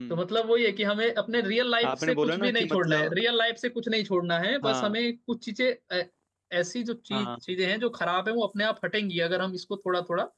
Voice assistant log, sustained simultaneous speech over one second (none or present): present